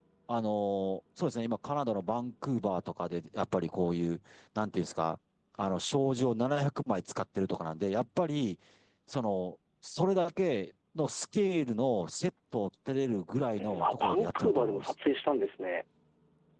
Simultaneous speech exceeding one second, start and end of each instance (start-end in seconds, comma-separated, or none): 13.6-14.8